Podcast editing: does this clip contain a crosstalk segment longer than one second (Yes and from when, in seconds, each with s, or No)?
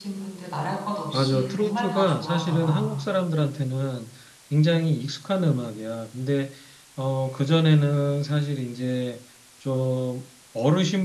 Yes, from 1.1 s